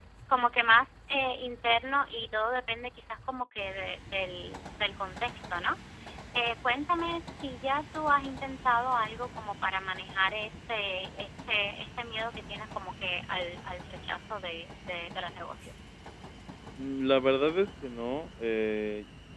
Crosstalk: none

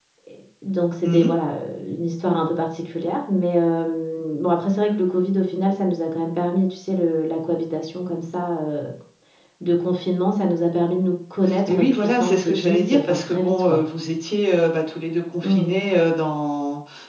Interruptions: present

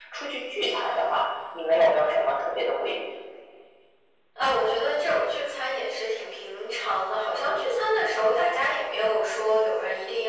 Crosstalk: none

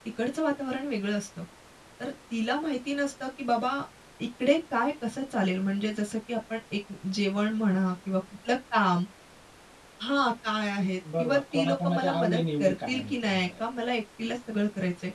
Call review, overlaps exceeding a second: present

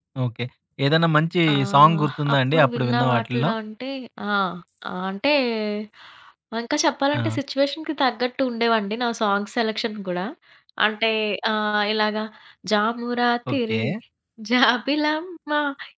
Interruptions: present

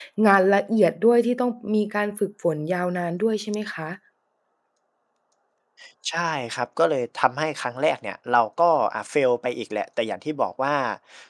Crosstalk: none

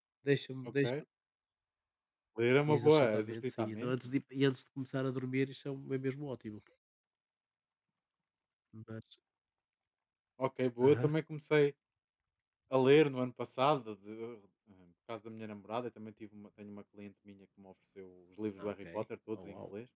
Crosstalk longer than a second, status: present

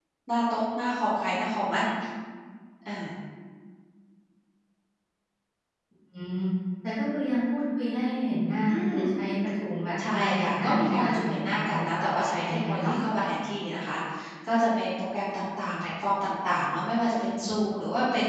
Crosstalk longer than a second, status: present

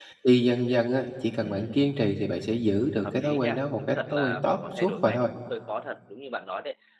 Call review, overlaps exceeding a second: present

